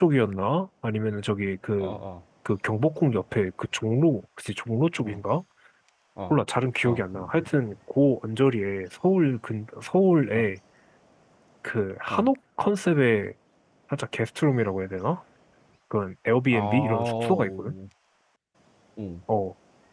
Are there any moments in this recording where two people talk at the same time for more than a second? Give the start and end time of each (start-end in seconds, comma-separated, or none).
16.5-17.7